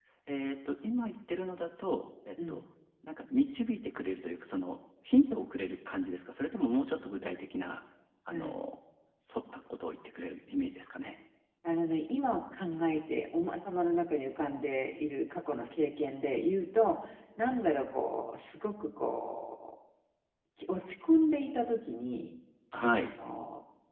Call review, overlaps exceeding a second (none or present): none